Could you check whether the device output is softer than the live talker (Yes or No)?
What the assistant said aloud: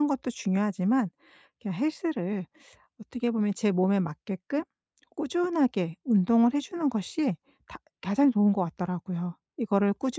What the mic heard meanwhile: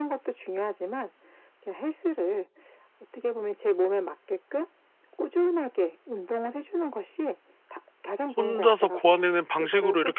Yes